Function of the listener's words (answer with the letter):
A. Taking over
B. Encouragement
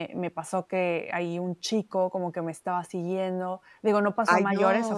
B